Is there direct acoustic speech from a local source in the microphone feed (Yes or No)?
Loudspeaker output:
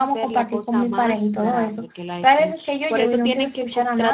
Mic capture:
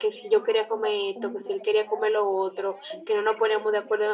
Yes